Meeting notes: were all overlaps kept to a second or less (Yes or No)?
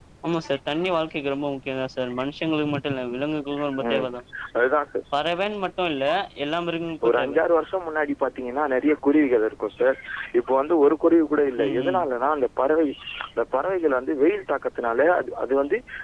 Yes